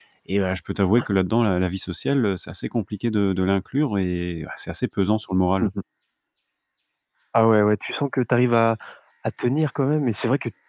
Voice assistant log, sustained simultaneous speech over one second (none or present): none